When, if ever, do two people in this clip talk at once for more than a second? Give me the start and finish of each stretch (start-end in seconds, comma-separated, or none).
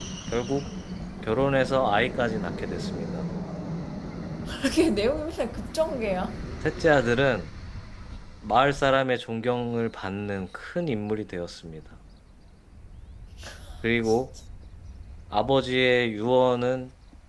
none